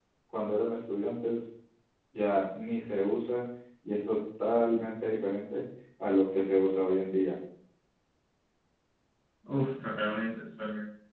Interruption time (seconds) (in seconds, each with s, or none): none